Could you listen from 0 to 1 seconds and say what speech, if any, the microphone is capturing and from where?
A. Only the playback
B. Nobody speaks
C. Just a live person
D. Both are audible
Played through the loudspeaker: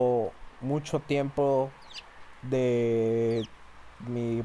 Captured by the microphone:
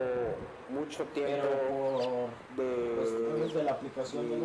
A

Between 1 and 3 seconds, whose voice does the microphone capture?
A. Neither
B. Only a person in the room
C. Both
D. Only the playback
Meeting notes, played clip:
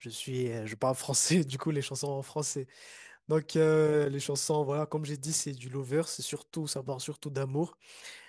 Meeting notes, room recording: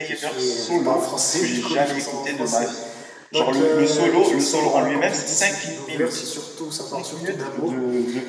C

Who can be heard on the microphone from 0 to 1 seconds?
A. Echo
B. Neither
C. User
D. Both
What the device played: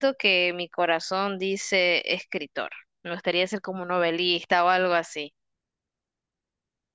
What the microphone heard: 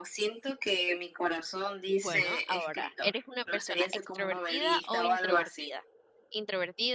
A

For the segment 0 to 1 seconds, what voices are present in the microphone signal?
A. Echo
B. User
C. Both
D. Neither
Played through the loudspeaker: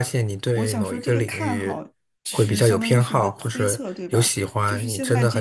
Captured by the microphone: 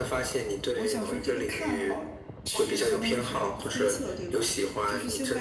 A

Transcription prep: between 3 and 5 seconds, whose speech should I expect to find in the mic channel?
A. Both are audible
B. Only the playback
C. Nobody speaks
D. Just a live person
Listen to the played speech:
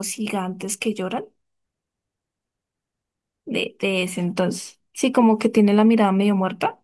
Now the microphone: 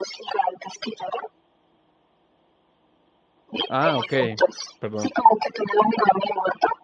A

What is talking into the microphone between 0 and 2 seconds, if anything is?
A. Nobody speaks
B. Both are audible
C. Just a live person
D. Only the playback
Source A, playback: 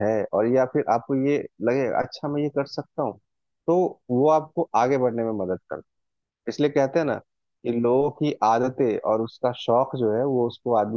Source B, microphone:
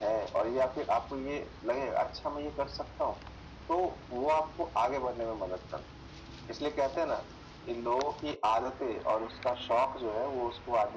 D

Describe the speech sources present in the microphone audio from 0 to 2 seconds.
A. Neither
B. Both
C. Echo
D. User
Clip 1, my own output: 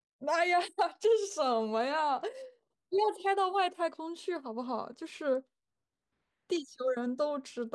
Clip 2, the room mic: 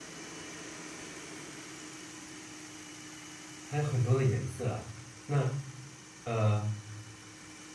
A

